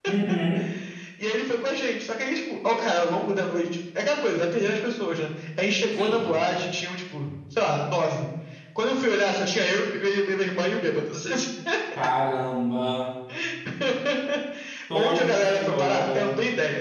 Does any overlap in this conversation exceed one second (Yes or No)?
Yes